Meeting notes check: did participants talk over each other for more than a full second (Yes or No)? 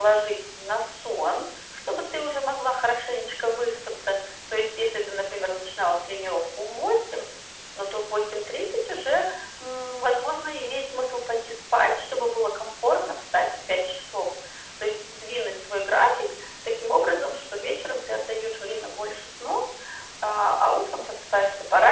No